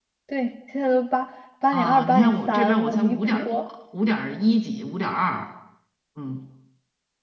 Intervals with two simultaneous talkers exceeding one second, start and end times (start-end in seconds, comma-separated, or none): 1.7-3.6